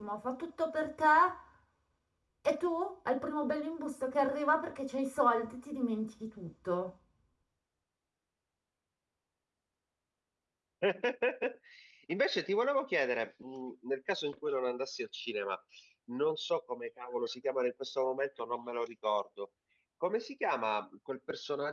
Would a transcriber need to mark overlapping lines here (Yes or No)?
No